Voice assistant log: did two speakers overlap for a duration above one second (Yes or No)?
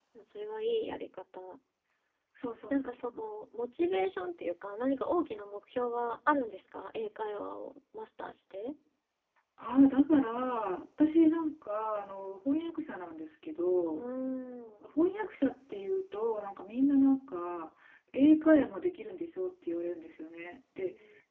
No